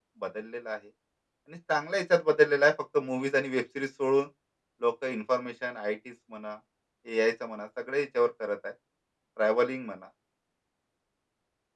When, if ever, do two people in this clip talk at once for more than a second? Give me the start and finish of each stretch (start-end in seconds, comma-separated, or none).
none